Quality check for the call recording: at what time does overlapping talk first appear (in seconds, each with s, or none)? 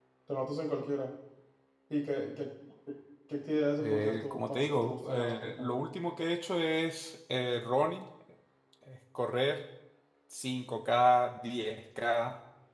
3.8 s